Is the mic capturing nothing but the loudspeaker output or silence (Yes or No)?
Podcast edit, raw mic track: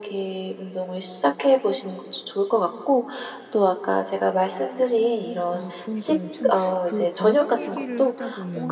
No